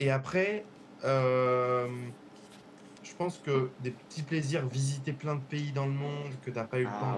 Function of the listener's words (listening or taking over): listening